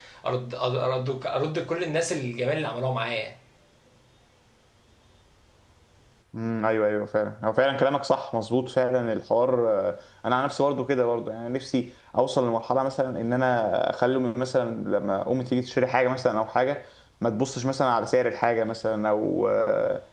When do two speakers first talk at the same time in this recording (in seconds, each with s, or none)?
none